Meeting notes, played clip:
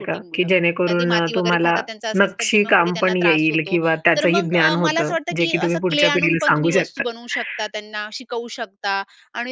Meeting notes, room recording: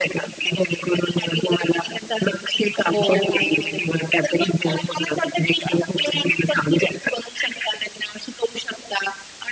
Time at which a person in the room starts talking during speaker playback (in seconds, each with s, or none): 2.9 s